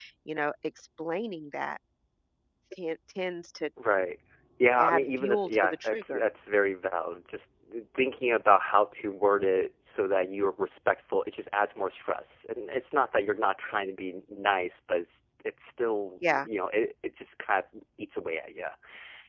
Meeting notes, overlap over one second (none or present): present